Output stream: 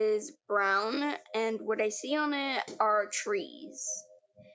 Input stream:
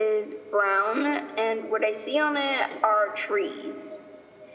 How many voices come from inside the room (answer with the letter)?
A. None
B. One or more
A